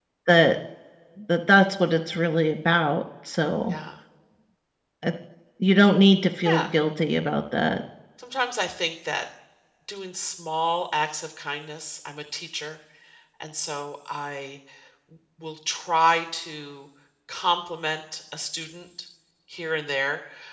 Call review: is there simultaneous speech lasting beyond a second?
No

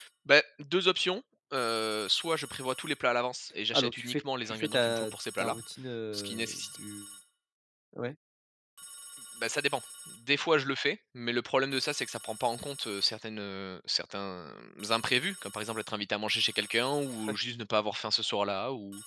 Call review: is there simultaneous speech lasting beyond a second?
Yes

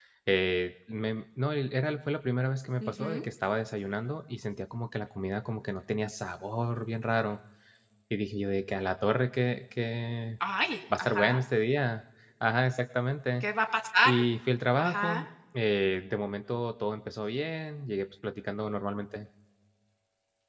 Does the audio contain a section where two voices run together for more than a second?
No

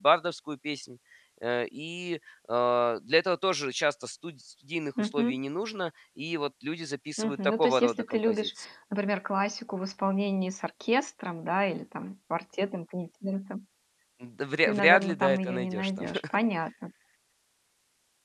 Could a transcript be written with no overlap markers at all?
No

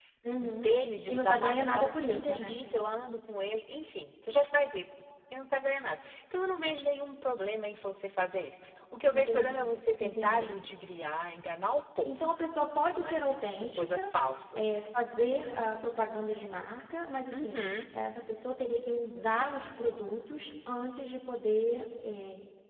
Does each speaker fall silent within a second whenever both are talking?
No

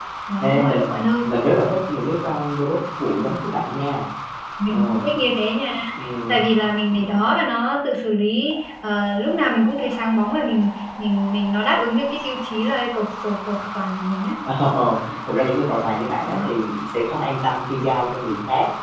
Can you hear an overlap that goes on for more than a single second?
No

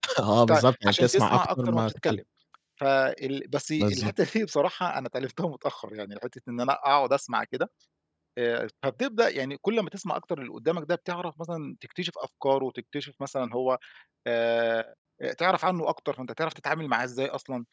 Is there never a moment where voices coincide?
No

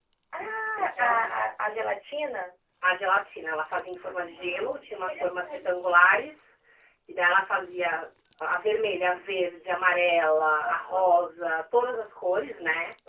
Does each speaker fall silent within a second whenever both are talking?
No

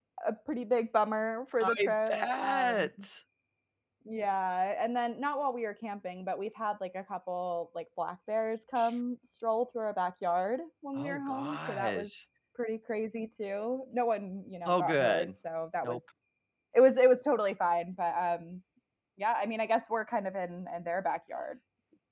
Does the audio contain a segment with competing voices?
Yes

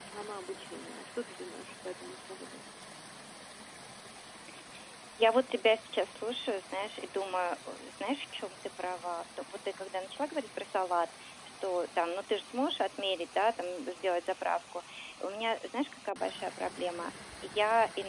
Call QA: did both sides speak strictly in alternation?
Yes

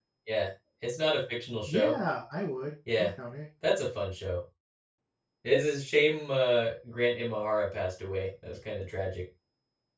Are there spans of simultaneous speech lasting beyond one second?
No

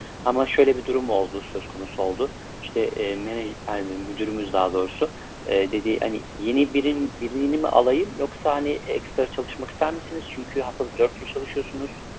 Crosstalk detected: No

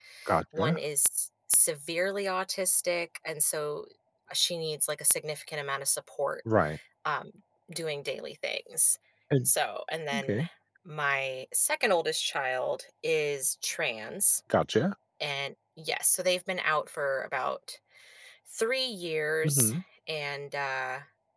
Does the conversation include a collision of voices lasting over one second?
No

